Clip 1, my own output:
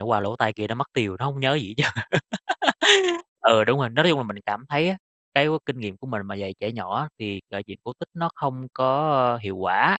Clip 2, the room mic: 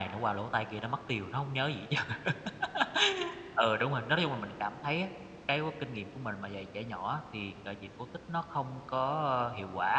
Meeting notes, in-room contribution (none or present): none